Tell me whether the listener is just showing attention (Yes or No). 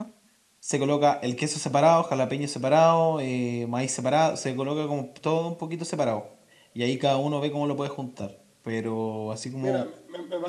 No